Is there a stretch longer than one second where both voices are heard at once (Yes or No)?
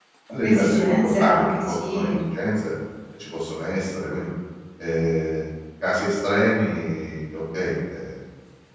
Yes